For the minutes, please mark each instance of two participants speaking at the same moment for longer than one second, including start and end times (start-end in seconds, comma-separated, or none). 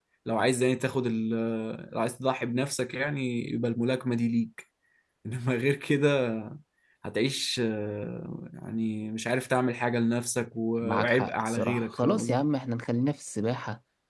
10.8-12.4